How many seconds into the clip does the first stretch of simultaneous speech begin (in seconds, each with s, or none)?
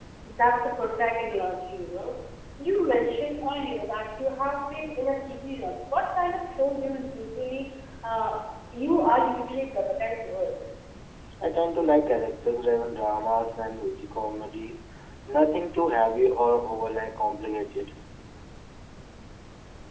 none